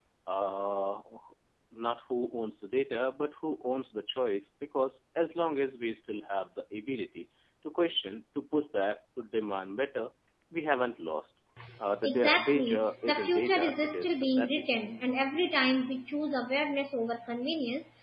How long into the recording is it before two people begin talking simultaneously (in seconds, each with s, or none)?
12.0 s